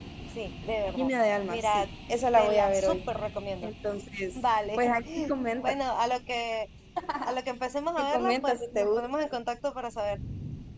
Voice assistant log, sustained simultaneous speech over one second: present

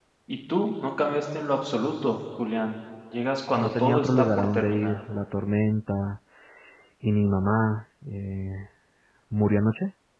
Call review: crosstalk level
present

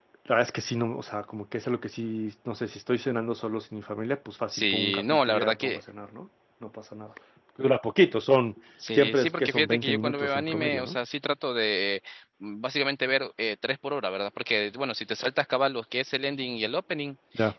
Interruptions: present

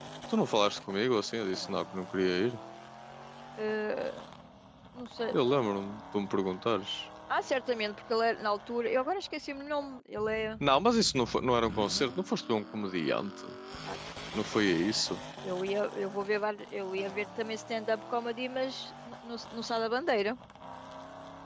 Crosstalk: none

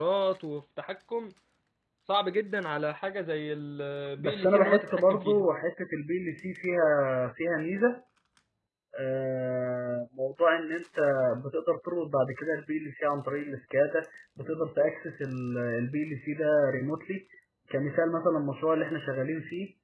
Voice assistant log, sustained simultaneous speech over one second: present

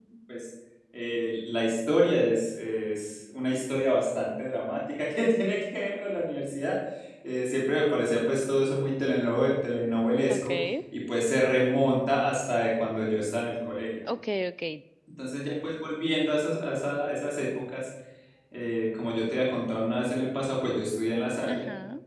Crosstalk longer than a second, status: none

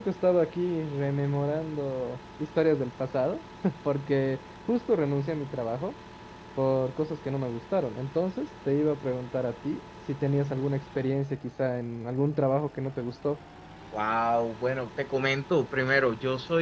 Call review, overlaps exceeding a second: none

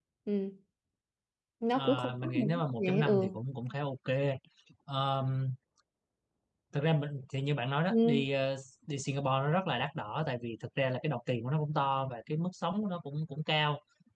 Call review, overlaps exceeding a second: present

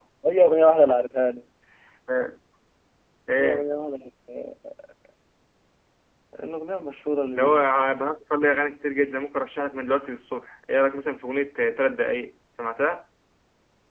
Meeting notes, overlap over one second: none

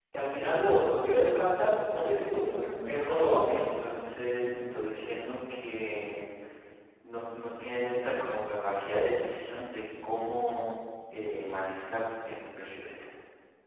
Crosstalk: present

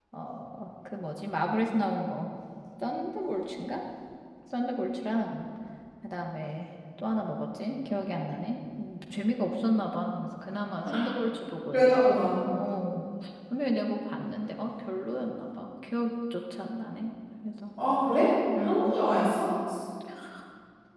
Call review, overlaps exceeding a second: none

